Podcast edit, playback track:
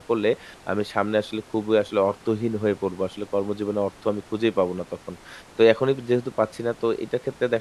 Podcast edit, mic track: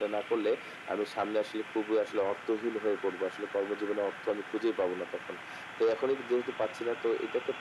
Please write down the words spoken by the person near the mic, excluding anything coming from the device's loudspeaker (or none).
none